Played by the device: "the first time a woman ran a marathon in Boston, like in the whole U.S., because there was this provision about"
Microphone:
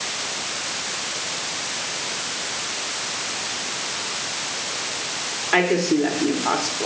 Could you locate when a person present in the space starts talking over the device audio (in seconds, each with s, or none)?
5.5 s